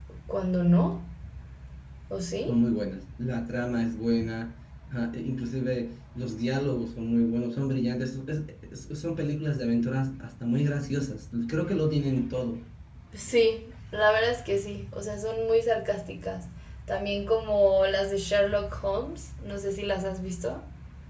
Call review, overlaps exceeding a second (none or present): none